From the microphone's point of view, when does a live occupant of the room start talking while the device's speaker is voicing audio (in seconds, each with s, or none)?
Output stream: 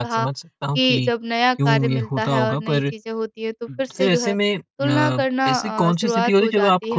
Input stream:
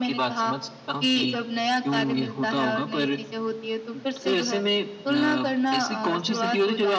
none